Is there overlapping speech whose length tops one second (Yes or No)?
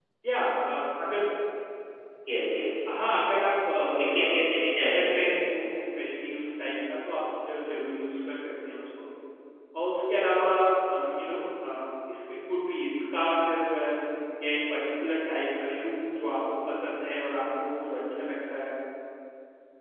Yes